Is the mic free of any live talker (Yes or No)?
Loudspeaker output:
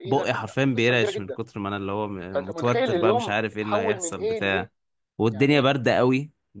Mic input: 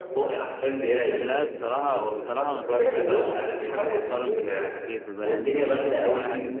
No